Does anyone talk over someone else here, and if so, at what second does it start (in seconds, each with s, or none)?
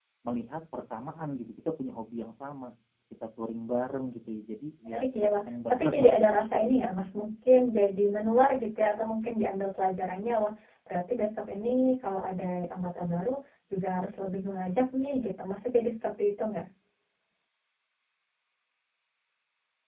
4.8 s